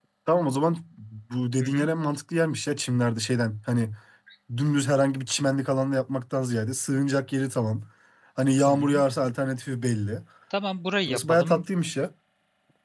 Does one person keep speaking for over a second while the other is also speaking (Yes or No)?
No